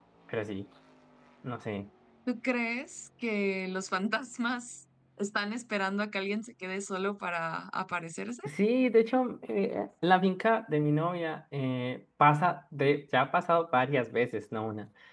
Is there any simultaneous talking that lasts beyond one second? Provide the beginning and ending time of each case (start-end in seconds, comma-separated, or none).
none